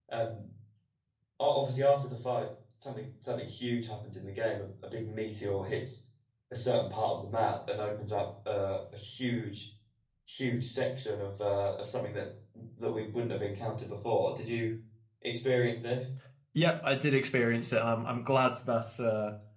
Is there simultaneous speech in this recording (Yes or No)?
No